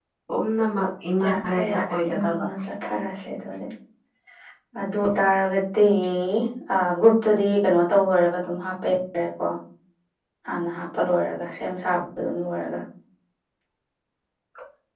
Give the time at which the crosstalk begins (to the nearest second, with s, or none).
1 s